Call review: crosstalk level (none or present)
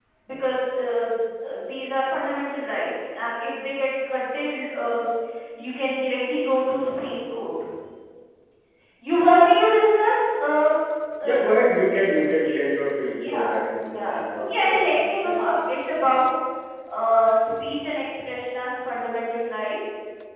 present